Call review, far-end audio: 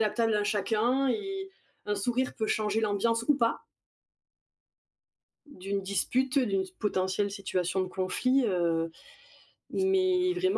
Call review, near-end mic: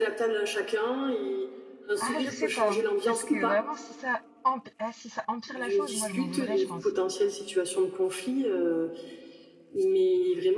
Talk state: both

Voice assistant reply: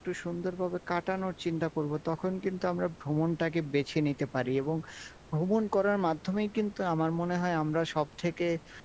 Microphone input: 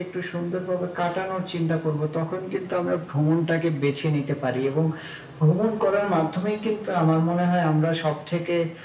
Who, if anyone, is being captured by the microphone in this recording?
echo only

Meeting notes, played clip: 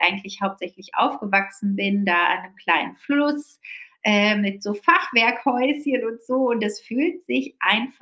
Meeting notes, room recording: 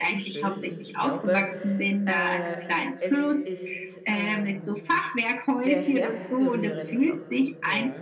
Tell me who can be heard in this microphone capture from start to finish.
both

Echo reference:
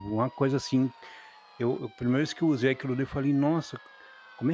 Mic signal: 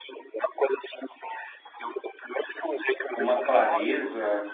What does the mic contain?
both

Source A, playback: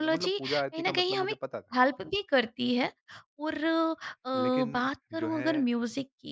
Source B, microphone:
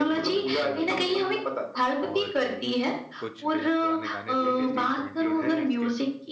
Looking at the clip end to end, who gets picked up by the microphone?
both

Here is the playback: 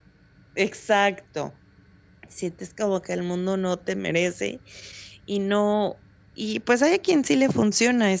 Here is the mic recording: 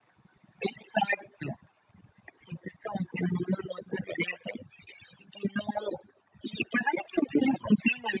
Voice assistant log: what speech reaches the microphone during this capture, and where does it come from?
echo only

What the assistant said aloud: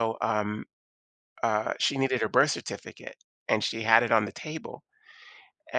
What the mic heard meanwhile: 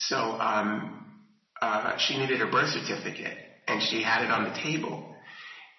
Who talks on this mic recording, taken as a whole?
echo only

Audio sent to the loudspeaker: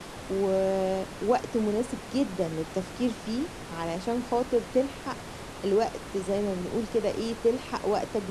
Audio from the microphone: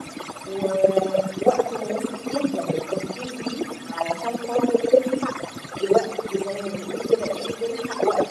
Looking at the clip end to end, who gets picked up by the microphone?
echo only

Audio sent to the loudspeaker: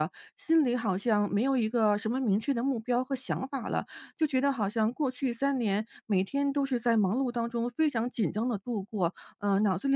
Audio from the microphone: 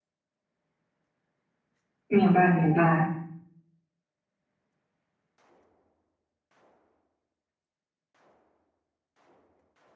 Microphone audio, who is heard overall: user only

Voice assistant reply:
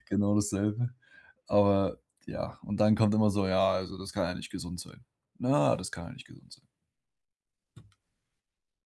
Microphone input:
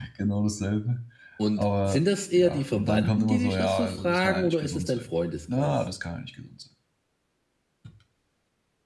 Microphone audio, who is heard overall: both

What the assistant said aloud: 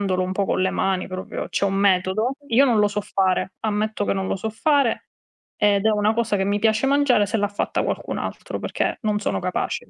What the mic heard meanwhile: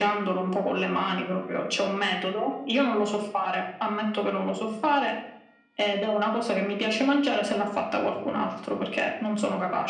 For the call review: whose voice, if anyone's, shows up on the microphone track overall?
echo only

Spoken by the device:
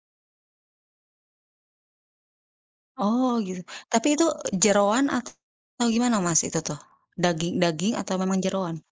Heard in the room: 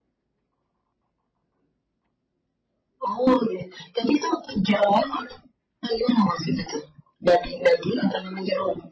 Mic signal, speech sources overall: echo only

